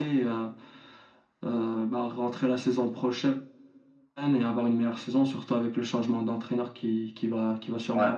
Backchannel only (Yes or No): No